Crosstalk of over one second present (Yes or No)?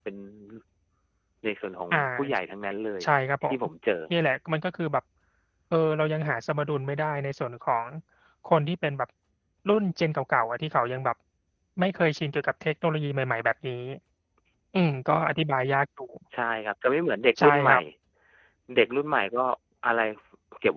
No